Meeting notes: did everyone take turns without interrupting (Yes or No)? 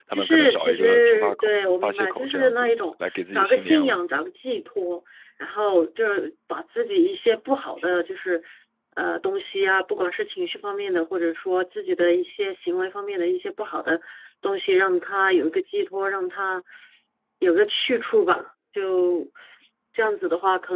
No